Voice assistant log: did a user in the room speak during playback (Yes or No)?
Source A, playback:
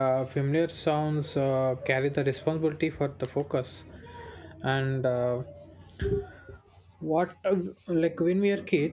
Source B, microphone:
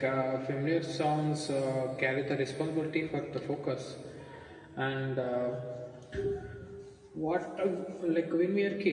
No